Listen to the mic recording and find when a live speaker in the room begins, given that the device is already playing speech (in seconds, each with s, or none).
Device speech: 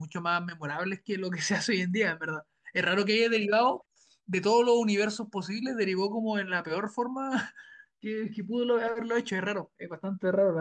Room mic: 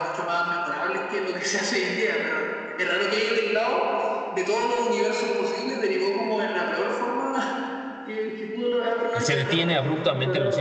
9.1 s